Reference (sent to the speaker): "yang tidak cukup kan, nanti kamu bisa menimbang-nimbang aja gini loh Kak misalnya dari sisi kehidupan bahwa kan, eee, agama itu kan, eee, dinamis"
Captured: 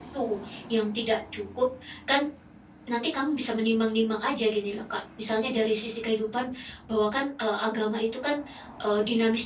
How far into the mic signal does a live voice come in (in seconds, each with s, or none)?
none